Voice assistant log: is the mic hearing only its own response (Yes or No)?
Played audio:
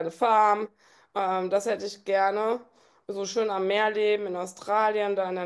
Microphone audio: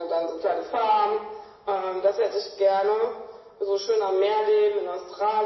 Yes